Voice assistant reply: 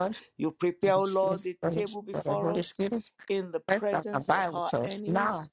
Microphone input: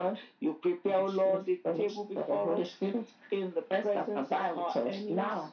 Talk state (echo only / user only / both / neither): echo only